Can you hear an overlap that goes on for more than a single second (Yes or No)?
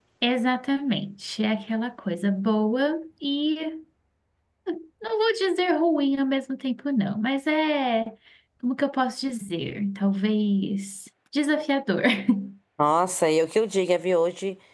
No